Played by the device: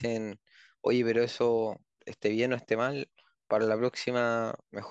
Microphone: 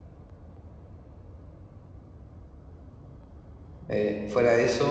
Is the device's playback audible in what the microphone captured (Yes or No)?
No